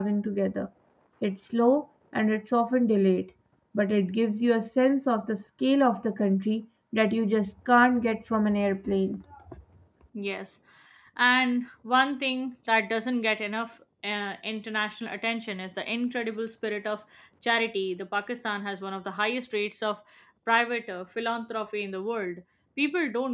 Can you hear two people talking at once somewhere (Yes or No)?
No